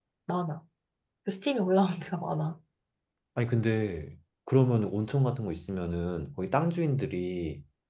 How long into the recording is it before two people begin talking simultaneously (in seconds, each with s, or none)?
none